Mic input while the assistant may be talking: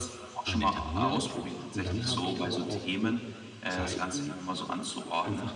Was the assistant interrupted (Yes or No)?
Yes